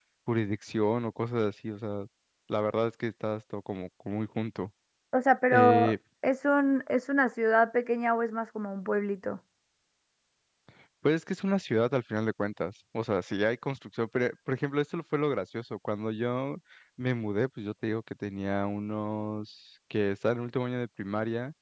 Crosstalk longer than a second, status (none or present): none